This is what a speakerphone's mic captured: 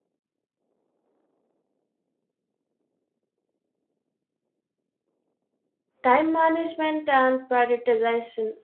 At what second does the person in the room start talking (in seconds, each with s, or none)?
6.0 s